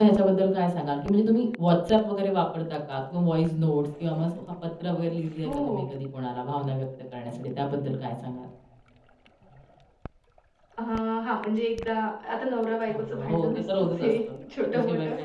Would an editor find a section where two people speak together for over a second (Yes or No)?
Yes